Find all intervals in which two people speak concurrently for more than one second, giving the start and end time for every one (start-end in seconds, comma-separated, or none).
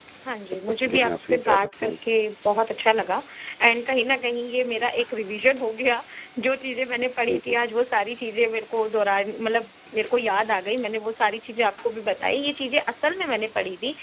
0.5-2.0